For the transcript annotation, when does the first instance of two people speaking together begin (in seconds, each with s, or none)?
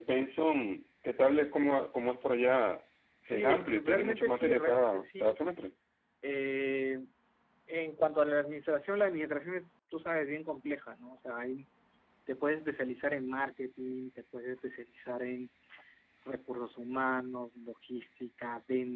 3.3 s